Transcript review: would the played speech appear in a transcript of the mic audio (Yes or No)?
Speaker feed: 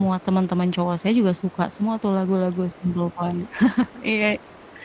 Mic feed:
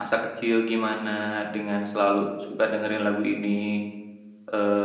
No